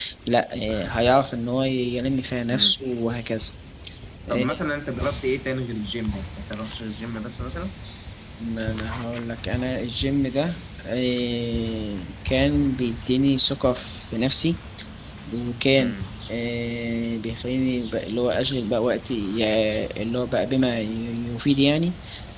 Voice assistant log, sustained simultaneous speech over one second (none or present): none